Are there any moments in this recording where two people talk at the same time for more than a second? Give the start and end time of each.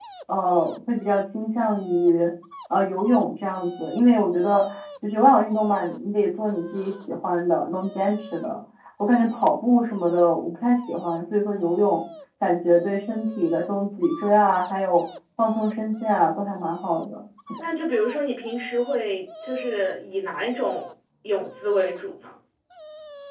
none

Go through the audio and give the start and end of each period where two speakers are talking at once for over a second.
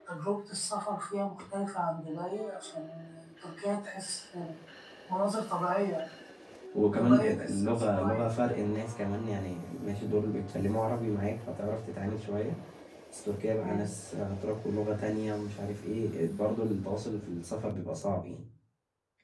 7.0-8.3

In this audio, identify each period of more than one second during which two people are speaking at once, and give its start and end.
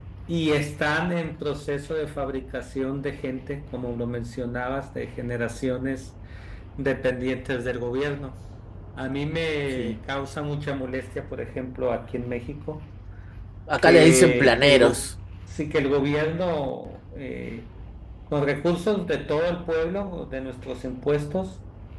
13.8-15.1

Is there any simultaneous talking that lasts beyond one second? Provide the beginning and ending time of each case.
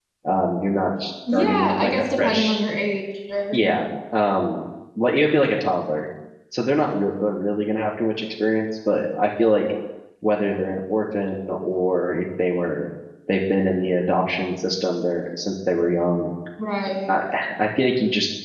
1.3-2.6

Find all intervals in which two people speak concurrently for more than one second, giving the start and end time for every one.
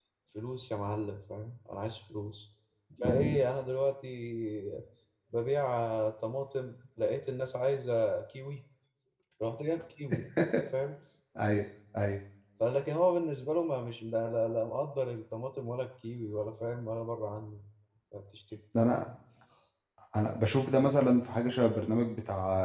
none

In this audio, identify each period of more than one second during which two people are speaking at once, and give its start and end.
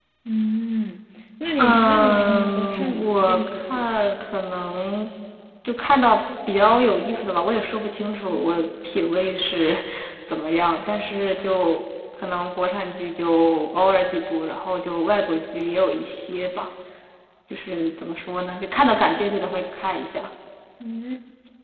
1.6-3.9

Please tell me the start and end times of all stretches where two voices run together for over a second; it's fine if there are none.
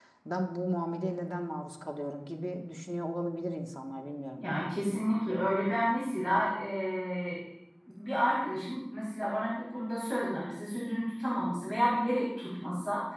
none

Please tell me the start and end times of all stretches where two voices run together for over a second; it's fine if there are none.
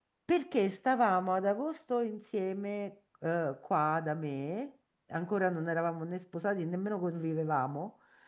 none

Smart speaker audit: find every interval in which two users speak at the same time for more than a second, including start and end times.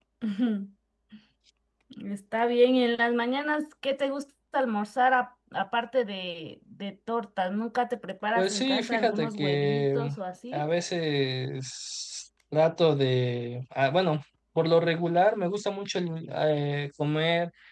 8.3-10.1

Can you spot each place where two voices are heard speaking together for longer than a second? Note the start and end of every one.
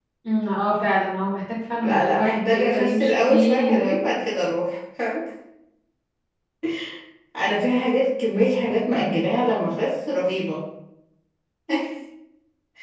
1.8-4.0

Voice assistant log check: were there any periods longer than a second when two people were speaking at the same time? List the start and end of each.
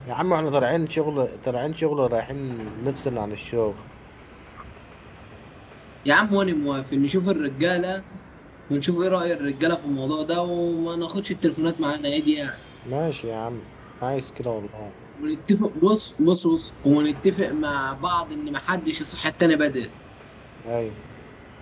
none

